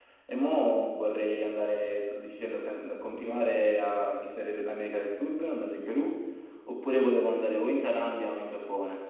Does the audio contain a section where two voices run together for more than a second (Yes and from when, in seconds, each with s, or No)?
No